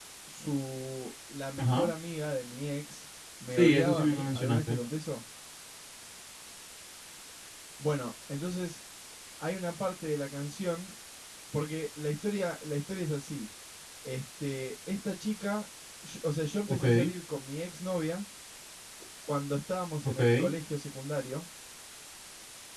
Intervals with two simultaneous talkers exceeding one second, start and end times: 3.5-4.8

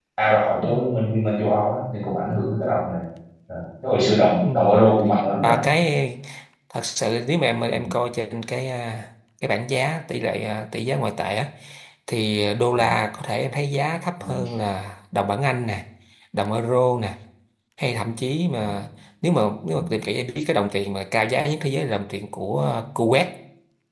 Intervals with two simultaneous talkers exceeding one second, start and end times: none

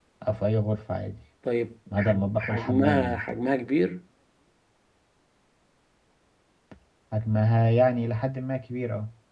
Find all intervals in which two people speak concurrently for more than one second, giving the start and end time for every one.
2.0-3.2

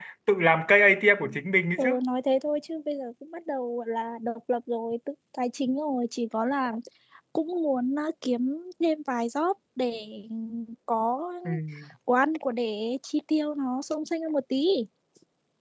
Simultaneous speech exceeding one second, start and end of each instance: none

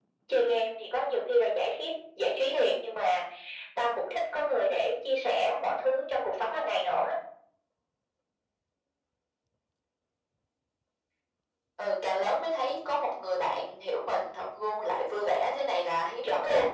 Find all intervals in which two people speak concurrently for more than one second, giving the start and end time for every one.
none

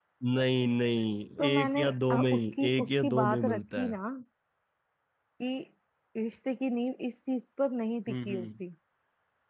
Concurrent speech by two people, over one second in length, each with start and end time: 1.4-4.0

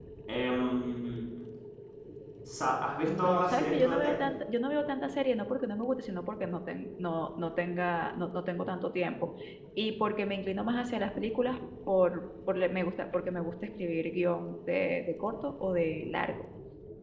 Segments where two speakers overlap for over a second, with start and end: 3.1-4.3

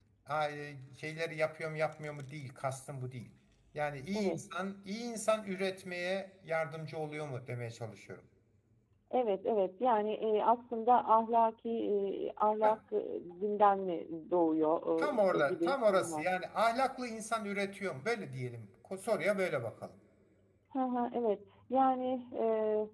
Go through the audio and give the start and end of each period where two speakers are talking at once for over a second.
15.0-16.2

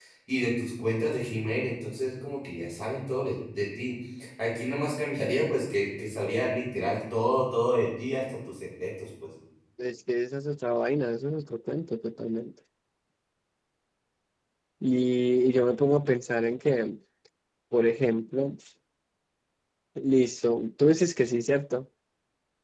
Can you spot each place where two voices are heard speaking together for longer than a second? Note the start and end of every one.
none

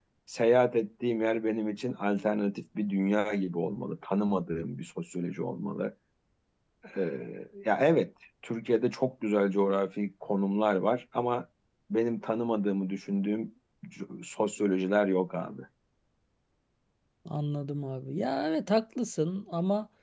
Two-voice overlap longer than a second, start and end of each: none

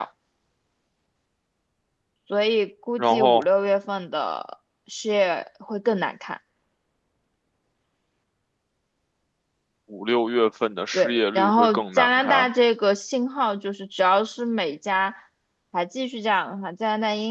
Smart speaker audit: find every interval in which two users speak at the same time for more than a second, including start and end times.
10.9-12.5

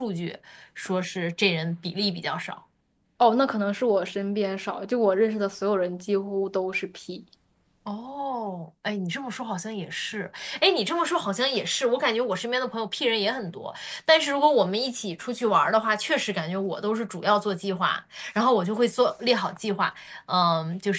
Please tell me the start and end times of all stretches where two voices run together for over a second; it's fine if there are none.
none

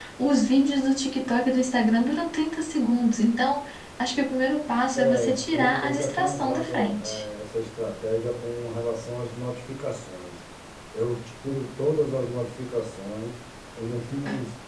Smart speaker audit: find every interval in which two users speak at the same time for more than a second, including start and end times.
5.0-7.2

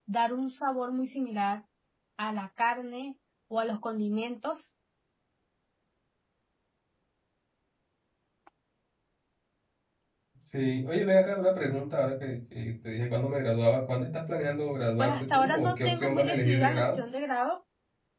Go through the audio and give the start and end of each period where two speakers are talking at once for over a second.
15.0-17.0

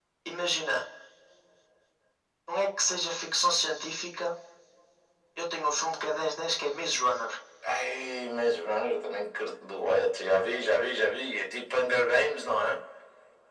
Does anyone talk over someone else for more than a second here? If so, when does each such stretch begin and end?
none

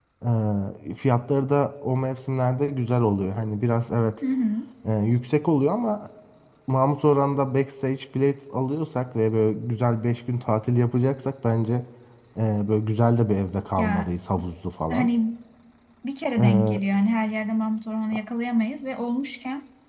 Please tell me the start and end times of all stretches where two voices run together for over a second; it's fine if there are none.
none

